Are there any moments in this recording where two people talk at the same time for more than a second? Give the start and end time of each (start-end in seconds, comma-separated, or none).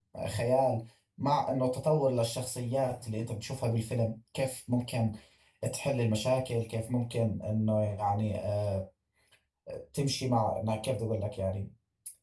none